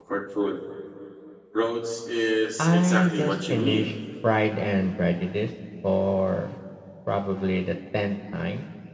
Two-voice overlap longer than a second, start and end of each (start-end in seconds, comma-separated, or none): 2.6-3.9